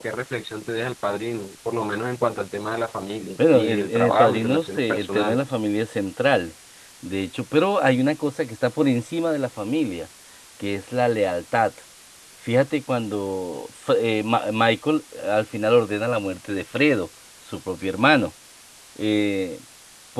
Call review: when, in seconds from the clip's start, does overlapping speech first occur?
3 s

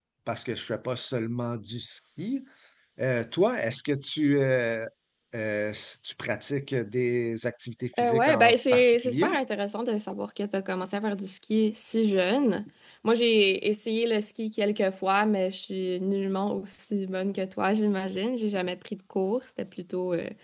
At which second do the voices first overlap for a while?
8 s

